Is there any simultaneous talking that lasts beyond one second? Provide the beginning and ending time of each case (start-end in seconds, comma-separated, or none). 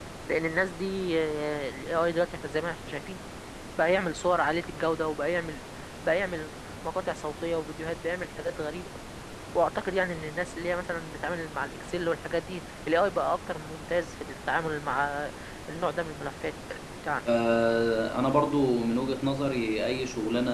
none